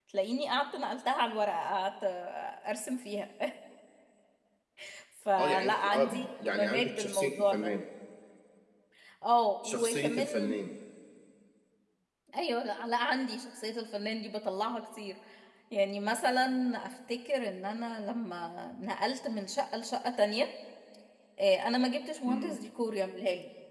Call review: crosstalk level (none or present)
present